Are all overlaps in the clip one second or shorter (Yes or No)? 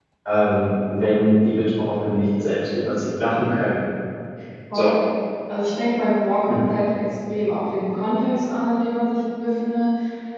Yes